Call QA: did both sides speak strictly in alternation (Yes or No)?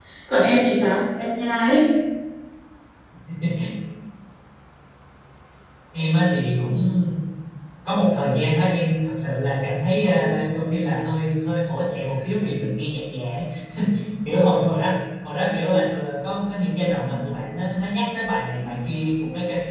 Yes